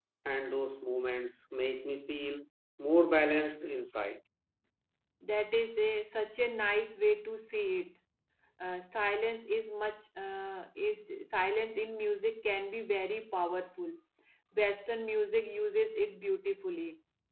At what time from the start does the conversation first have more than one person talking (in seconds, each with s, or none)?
none